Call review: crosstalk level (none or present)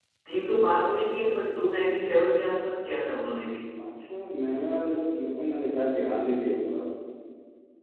none